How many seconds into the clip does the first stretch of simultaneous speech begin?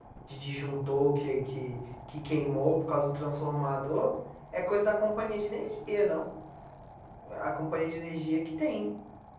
none

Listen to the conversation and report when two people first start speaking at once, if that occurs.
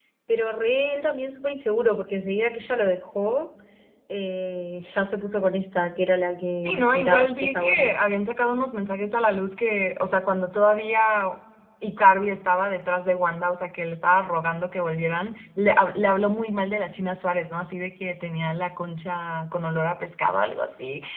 7 s

